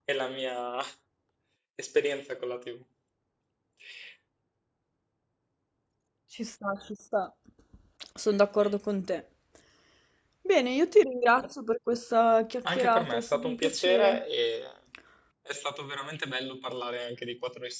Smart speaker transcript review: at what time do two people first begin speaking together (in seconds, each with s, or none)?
12.7 s